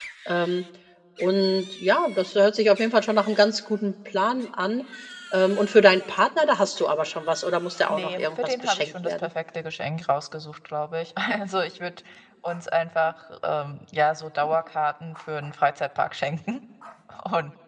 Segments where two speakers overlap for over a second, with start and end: 7.9-9.3

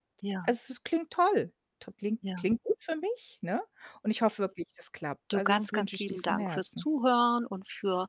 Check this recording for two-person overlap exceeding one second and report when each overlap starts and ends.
5.3-6.8

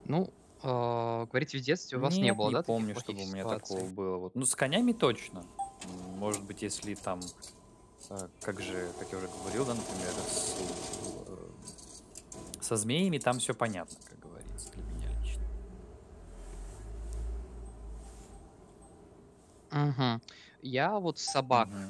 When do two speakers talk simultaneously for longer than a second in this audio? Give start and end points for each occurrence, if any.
2.0-3.9

